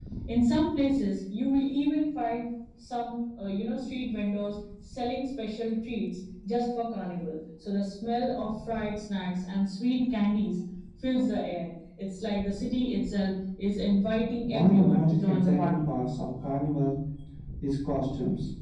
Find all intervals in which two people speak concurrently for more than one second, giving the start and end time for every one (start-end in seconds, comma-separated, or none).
14.5-15.9